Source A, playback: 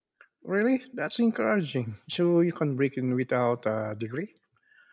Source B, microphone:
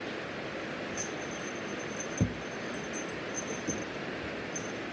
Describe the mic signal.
neither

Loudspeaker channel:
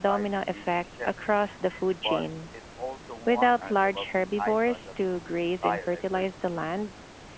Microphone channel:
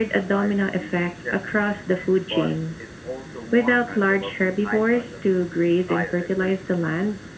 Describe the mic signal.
echo only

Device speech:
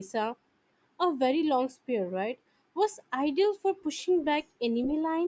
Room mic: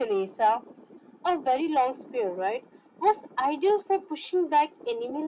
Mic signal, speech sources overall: echo only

